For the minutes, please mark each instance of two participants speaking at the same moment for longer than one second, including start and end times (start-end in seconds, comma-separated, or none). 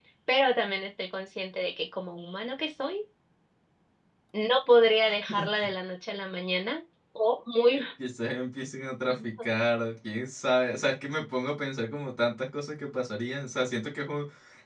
none